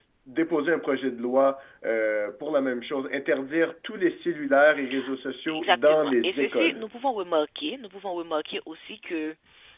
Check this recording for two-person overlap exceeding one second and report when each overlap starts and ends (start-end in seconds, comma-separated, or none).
5.5-6.9